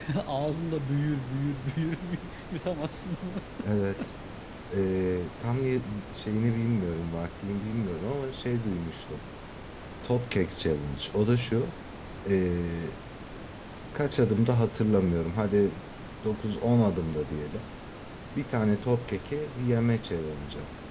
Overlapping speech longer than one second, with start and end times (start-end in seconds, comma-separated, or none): none